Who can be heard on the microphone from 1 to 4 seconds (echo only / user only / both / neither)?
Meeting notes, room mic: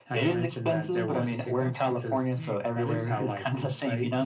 both